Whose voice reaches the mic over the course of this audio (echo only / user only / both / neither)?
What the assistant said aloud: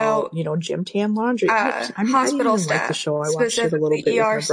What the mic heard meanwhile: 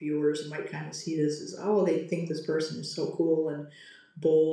user only